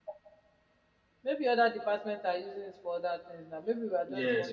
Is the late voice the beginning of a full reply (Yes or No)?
Yes